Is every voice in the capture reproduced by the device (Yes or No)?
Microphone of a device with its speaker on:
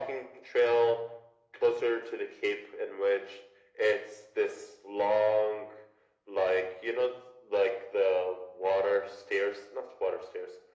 Yes